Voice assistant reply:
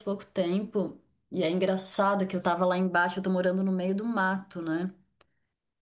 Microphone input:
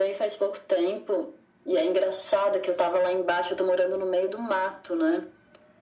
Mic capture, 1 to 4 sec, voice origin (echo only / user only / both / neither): echo only